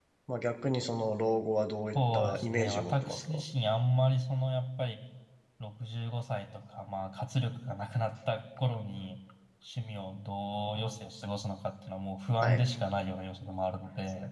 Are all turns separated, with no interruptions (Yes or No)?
No